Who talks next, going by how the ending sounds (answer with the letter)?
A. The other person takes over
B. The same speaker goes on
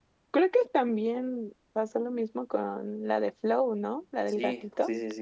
A